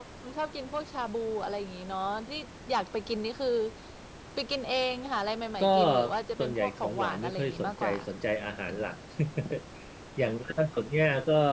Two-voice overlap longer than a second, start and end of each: 6.4-7.9

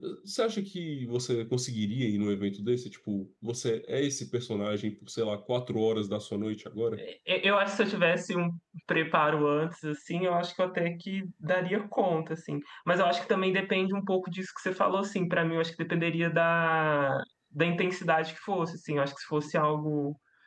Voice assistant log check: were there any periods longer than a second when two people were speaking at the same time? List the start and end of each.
none

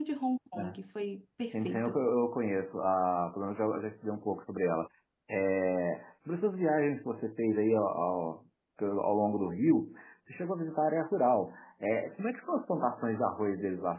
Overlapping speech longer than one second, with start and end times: none

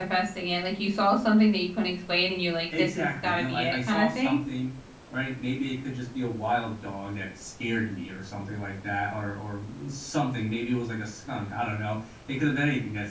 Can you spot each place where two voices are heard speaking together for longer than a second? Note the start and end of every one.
2.8-4.4

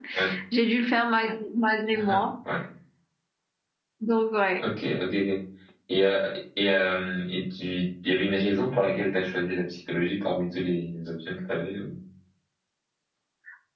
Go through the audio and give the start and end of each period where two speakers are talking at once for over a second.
none

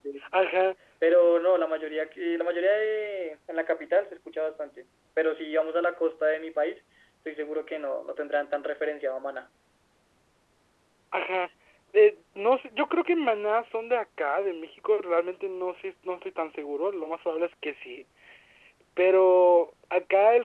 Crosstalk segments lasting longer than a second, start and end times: none

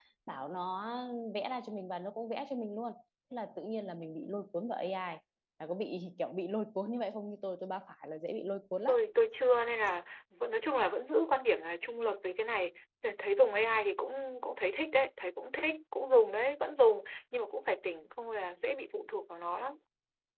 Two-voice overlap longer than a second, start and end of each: none

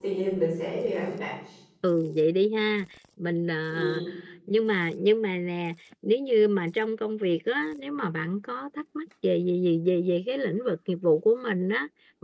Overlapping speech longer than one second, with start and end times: none

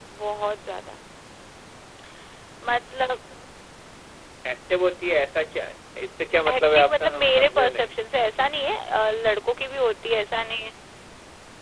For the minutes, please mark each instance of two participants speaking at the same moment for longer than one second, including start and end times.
6.5-7.9

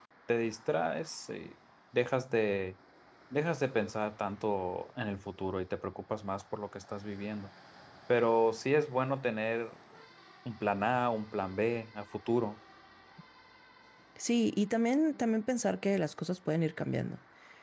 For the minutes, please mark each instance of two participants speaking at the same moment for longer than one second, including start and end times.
none

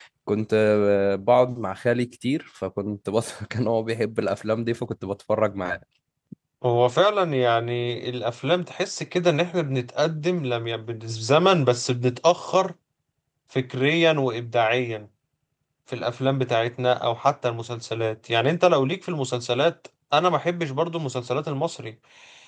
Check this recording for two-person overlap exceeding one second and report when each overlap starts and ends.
none

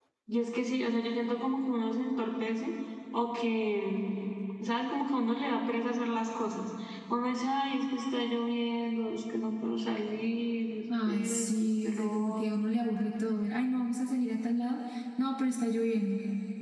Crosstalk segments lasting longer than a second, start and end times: 11.0-12.8

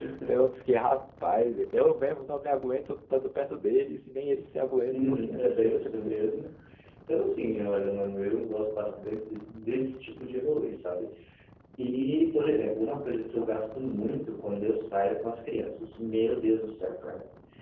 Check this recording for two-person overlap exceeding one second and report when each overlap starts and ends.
4.9-6.2

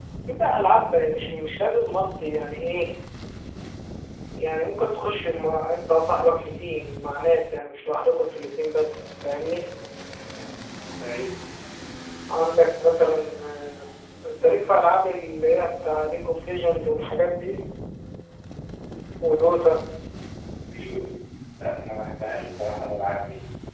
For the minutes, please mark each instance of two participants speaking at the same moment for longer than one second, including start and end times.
none

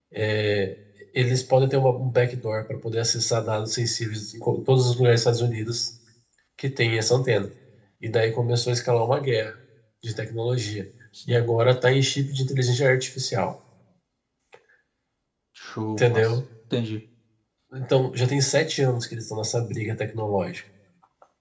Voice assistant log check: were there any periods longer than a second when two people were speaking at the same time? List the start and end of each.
none

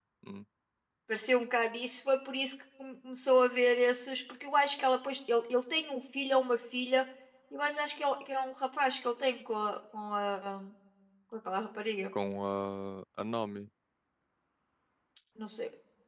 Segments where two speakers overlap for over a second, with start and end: none

